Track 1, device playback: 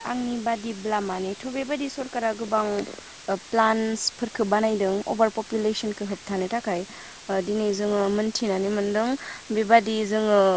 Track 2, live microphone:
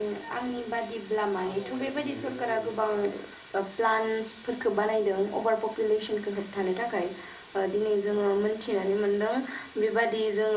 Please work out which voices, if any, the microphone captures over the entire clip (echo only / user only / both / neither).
both